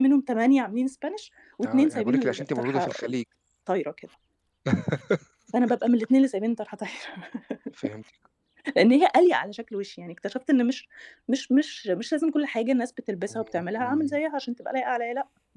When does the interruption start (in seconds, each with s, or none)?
1.6 s